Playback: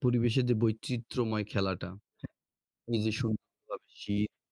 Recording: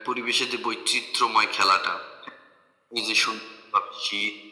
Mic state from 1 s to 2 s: echo only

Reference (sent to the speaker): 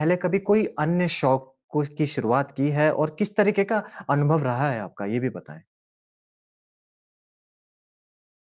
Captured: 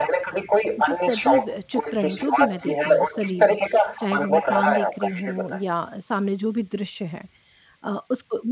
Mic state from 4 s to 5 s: both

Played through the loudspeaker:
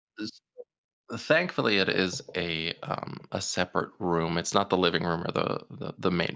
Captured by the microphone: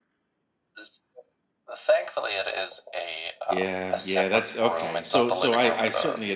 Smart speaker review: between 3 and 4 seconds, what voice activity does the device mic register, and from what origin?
both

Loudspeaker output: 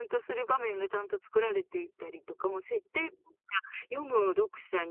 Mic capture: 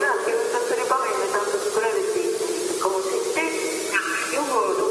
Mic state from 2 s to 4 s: echo only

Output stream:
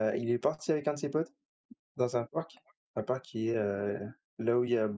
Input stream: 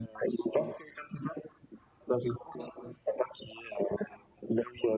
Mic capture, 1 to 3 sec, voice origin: echo only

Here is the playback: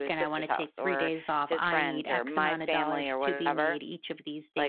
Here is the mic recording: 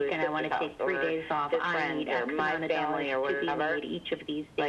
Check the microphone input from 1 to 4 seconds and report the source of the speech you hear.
echo only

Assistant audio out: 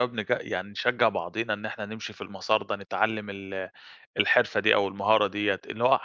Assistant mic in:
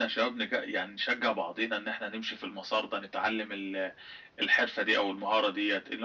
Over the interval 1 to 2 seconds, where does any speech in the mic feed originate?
echo only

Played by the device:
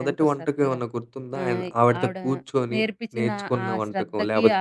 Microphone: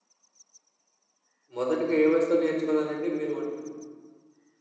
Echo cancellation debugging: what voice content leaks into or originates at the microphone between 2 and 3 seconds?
user only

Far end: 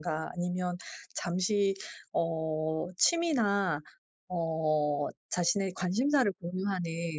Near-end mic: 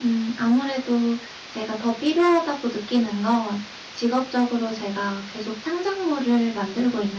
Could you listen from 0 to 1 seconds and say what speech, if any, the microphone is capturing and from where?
user only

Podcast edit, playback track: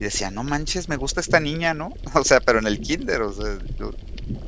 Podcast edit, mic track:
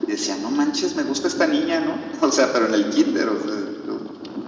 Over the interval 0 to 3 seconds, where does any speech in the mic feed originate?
echo only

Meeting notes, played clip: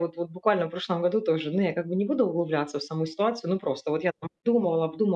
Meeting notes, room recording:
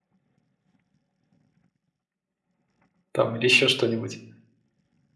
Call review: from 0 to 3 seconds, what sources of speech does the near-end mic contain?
neither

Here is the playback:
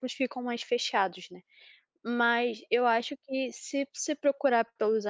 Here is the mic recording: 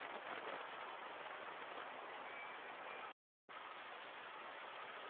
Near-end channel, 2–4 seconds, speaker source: neither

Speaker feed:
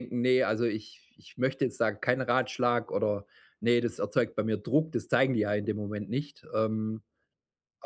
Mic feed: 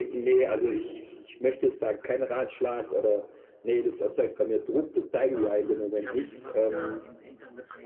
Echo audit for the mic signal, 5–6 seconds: both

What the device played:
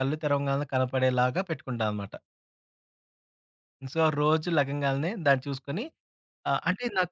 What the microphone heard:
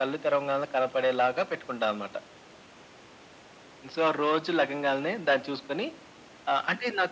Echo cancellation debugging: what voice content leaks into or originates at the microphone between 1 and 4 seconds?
echo only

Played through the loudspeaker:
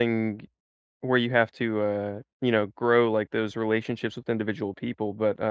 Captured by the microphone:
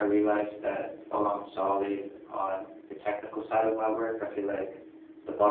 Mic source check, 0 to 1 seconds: user only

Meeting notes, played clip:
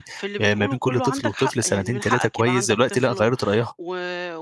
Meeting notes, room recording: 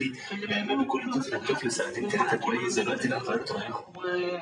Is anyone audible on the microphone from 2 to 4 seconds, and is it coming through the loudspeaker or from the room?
echo only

